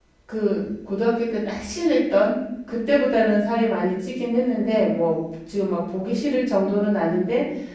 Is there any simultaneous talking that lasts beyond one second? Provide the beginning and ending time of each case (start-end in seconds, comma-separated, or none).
none